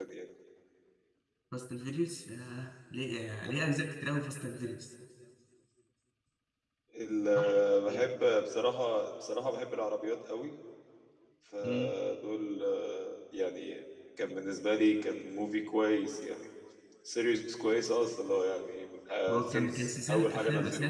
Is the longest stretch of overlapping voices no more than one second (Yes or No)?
No